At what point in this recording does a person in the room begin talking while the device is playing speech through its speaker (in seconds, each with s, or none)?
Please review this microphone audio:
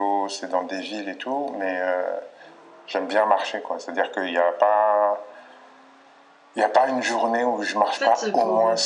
7.9 s